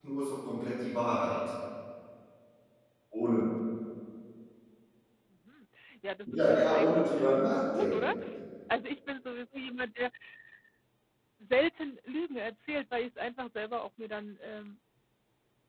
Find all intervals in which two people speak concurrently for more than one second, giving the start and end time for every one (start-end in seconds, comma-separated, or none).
6.3-8.1